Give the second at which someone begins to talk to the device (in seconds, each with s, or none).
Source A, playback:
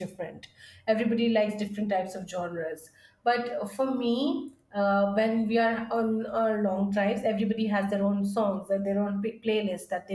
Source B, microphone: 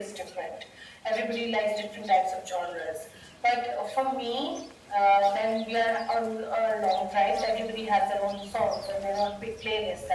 none